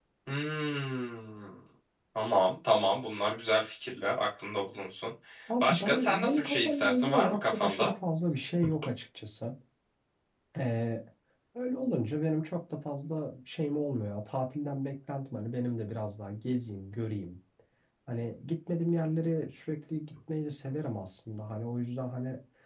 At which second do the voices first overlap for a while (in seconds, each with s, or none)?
5.6 s